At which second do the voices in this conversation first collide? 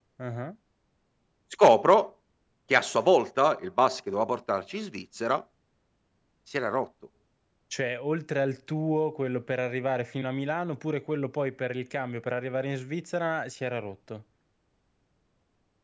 none

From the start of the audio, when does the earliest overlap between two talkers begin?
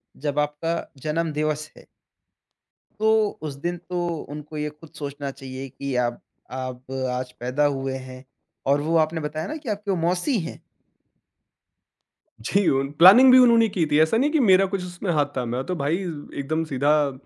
none

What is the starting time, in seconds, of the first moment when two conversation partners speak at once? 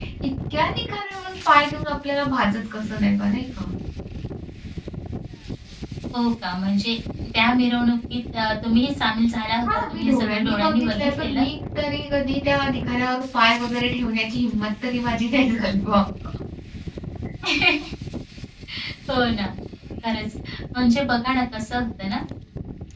10 s

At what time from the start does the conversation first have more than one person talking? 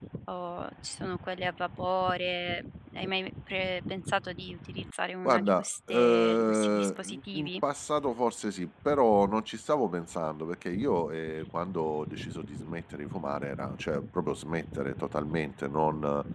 5 s

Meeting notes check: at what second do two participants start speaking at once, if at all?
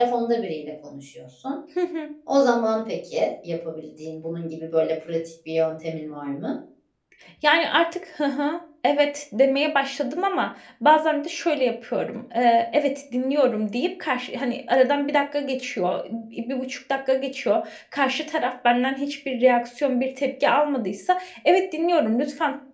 none

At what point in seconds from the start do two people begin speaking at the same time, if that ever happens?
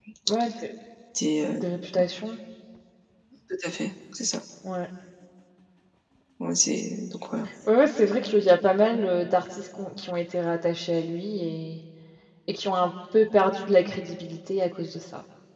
none

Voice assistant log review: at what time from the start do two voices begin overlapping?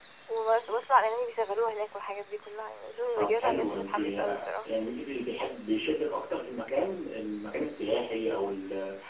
3 s

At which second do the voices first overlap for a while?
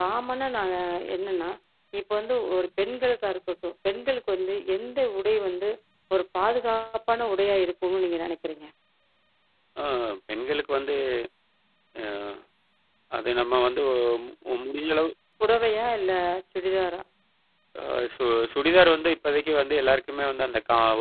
none

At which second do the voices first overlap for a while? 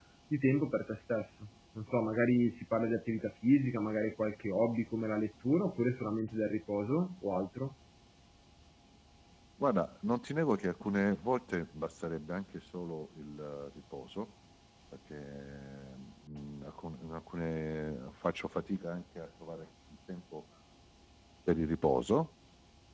none

